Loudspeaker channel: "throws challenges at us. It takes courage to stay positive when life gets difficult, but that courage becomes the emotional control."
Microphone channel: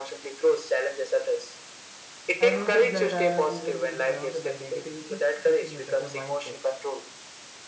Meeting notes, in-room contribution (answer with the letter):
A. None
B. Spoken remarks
B